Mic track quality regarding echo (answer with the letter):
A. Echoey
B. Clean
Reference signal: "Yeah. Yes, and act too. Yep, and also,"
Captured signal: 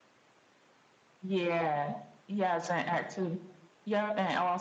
A